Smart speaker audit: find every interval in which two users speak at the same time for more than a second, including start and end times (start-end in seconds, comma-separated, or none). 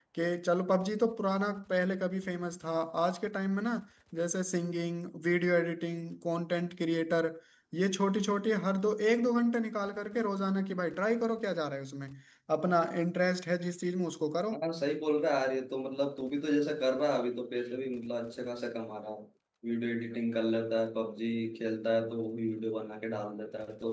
none